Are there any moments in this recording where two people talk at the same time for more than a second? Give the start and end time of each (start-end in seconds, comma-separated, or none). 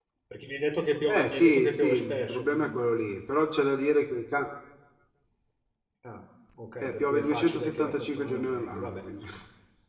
1.1-2.9, 6.8-9.3